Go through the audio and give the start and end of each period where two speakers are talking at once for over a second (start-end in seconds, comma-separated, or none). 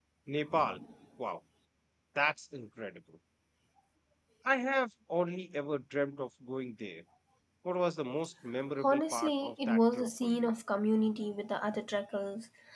8.8-10.5